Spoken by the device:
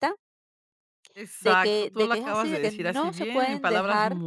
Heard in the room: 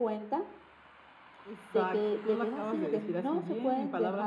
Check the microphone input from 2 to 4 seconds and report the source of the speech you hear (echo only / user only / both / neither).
echo only